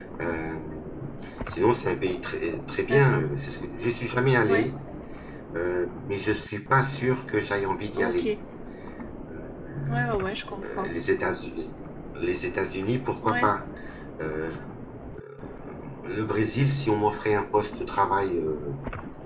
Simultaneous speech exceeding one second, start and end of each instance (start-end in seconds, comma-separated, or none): none